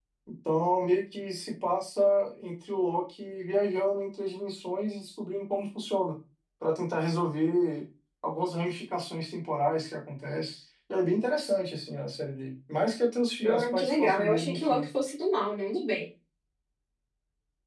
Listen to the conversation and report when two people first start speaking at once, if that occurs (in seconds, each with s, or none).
13.4 s